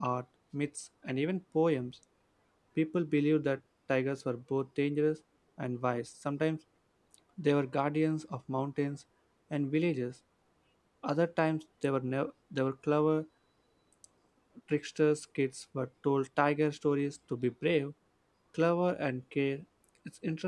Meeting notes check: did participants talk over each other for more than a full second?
No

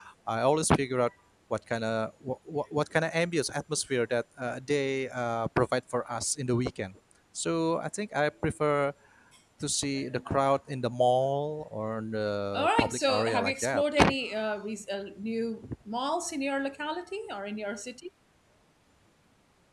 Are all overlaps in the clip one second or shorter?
No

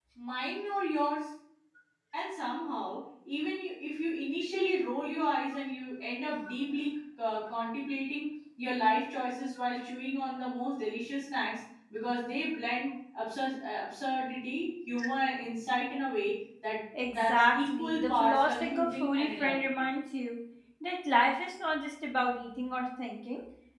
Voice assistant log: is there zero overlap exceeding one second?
No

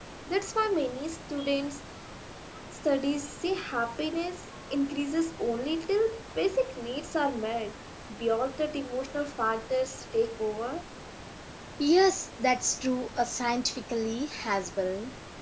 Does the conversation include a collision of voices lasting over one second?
No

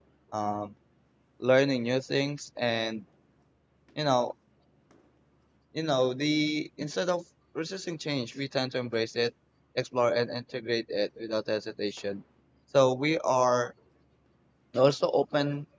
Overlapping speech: No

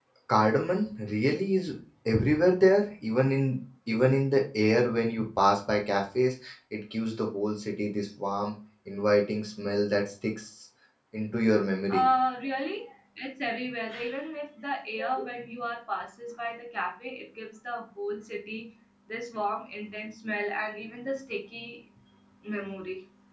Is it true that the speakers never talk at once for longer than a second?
Yes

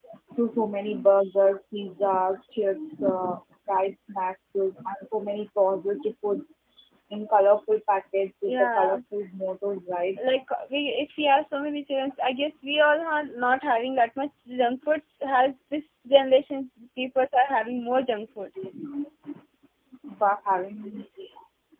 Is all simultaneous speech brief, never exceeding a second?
Yes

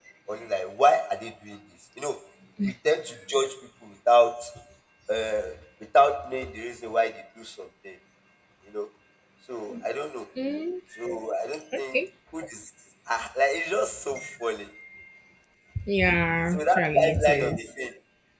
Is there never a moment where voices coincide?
No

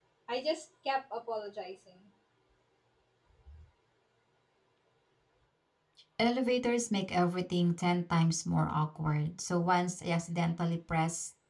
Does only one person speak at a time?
Yes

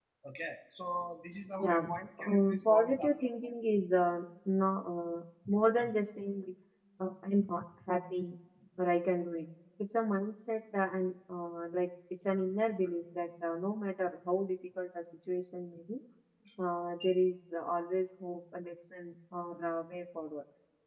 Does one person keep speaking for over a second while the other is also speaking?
Yes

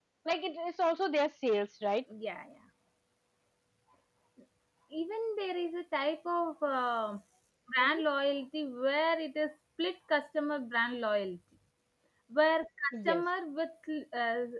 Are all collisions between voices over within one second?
Yes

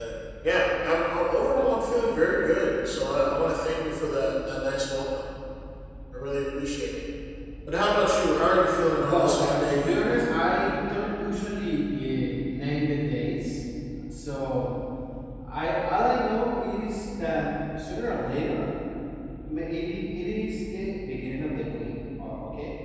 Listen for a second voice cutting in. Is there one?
Yes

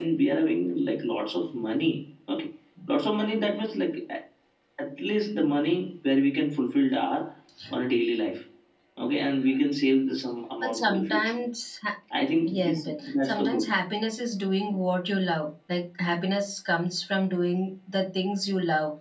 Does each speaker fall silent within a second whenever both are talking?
No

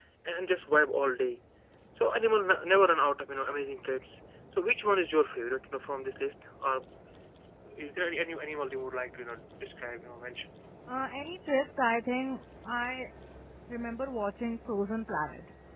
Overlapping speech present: No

